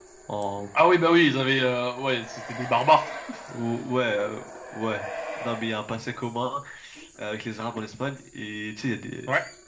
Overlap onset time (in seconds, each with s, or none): none